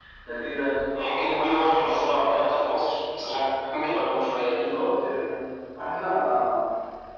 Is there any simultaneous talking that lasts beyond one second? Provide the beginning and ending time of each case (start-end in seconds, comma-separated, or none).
none